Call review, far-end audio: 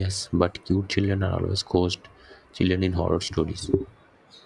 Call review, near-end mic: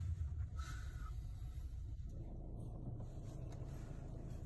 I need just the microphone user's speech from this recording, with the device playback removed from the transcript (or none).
none